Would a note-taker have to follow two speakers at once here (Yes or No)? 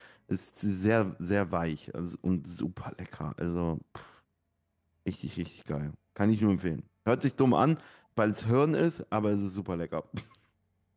No